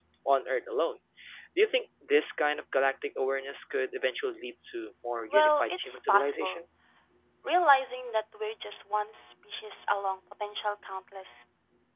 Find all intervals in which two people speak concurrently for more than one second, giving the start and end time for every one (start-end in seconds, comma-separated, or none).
5.3-6.6